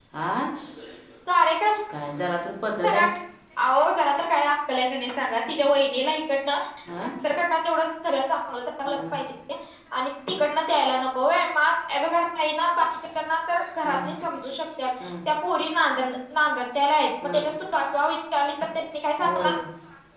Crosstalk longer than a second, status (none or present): none